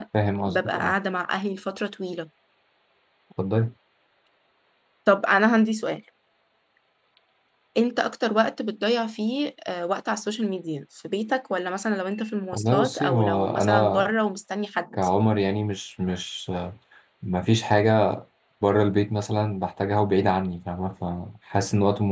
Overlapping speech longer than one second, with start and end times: 12.5-14.1

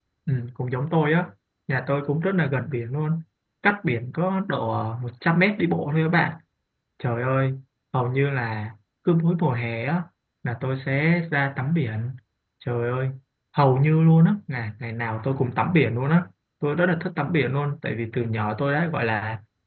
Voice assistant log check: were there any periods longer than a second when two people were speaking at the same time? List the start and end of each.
none

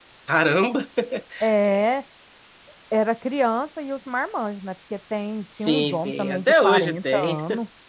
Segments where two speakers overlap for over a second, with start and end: 5.6-7.4

